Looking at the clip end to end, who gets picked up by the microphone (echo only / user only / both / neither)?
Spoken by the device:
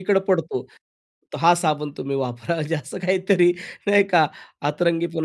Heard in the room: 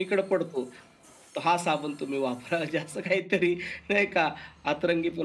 echo only